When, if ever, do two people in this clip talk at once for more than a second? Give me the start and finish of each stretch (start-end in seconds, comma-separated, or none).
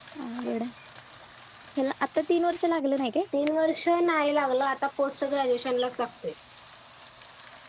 none